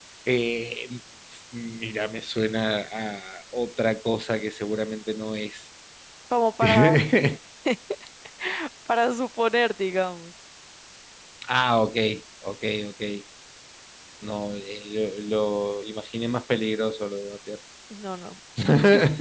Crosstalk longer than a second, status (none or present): none